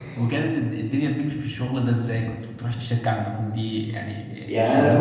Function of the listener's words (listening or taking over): taking over